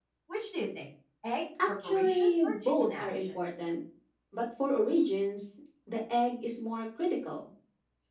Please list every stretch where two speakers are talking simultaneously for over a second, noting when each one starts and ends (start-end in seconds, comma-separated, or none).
1.7-3.3